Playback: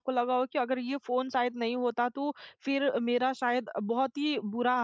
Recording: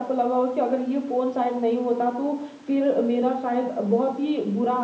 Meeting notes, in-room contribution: none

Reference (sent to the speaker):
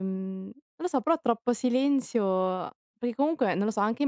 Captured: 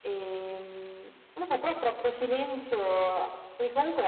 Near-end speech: none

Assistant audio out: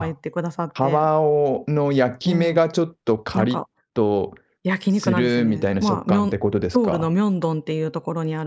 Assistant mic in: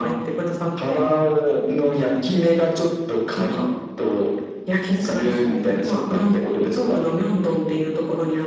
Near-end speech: none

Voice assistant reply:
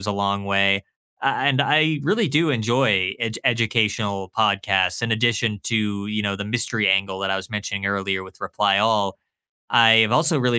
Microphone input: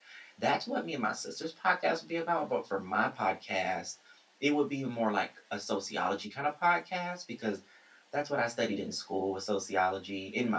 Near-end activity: present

